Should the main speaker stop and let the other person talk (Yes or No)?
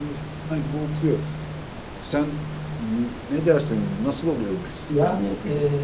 Yes